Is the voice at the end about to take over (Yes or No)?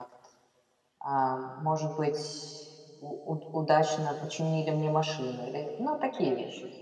Yes